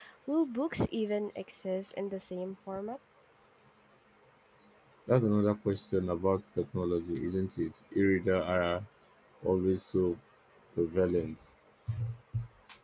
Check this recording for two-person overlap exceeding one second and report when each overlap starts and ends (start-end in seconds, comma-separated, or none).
none